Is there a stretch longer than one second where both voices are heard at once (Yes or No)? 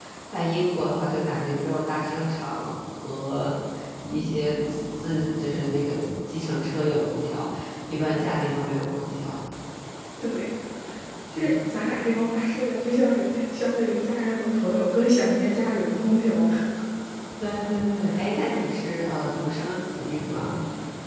No